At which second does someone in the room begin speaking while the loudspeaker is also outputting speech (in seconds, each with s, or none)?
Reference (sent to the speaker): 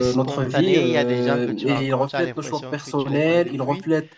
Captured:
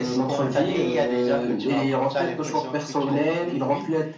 none